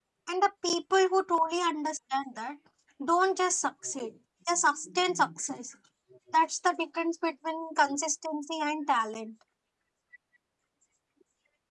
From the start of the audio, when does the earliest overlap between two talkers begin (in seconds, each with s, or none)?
none